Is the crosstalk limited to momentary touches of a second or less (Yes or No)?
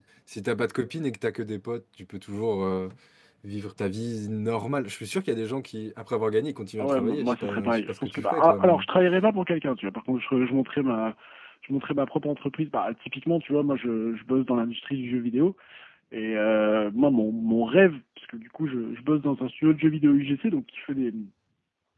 No